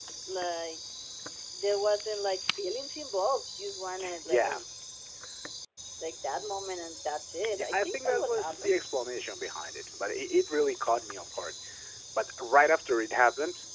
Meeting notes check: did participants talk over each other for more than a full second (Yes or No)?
Yes